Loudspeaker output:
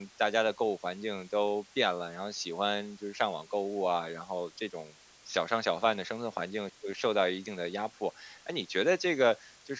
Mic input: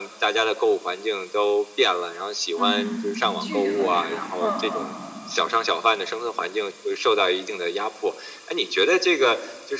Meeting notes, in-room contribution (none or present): present